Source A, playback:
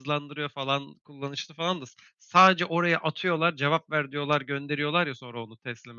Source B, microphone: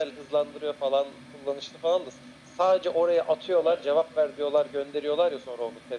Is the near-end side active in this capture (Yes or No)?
Yes